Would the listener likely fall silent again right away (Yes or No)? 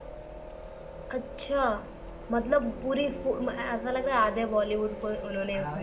No